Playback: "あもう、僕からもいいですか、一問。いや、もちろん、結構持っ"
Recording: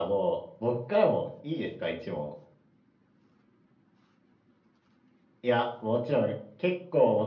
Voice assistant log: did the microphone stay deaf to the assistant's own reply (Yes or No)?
No